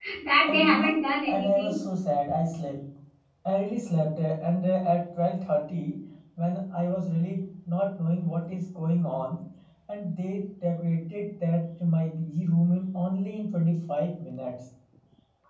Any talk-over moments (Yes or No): Yes